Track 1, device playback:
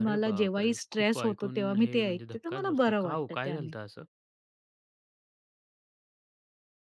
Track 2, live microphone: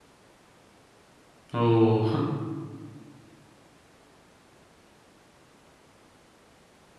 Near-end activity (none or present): present